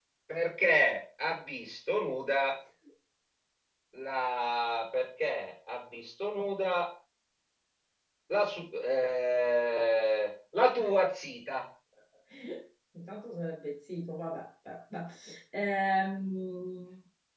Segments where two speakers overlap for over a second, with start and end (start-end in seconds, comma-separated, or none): none